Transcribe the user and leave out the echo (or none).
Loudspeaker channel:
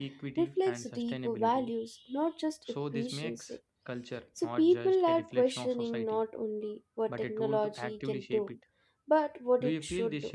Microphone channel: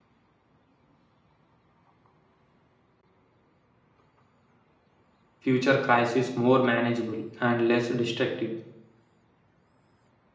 future crises more manageable and less destructive.